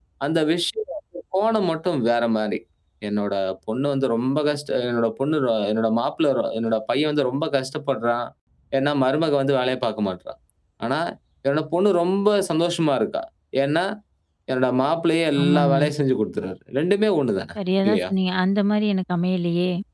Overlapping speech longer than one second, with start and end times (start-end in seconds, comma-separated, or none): none